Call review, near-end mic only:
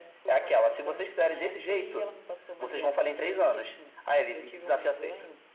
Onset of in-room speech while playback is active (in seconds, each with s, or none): none